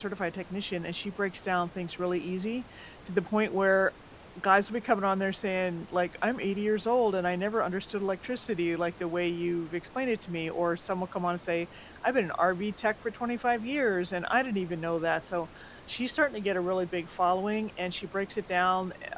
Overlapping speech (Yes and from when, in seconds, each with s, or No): No